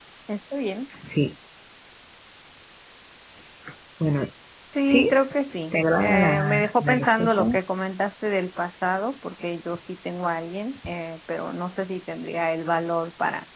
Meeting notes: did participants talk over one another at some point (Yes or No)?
Yes